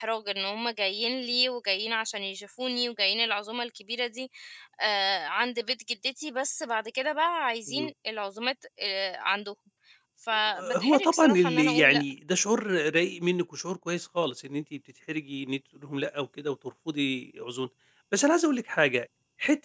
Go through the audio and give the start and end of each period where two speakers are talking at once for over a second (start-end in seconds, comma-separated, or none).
10.8-12.0